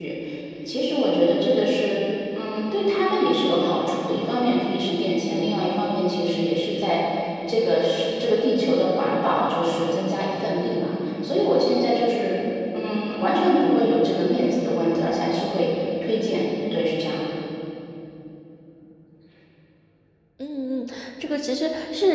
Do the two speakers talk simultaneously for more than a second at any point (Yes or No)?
No